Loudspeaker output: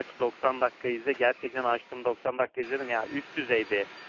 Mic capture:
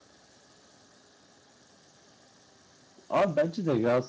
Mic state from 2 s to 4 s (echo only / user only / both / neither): user only